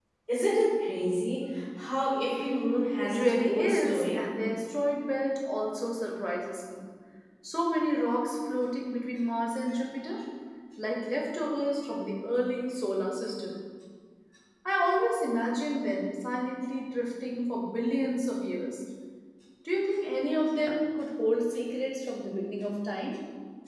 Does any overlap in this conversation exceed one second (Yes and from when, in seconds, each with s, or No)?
Yes, from 3.0 s